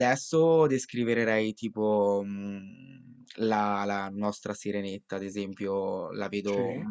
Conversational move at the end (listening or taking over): listening